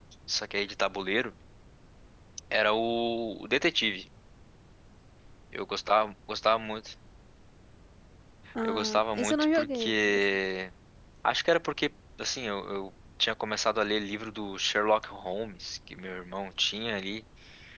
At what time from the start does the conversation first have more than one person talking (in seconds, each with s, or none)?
8.6 s